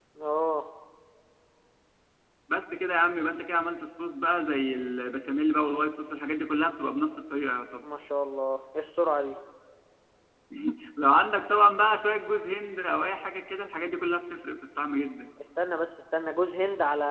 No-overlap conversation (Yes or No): Yes